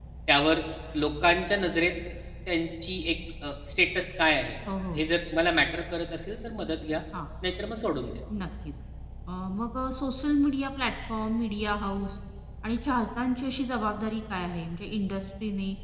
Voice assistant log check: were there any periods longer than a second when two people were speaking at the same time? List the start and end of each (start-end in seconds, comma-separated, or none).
none